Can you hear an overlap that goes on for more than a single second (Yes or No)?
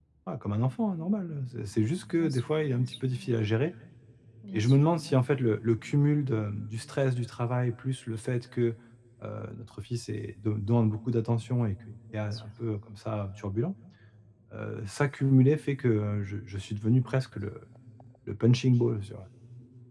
Yes